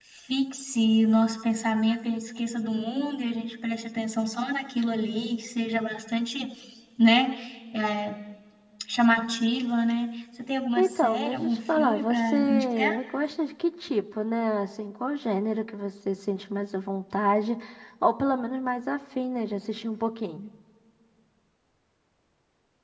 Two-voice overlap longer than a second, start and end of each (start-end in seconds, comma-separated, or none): 10.8-12.9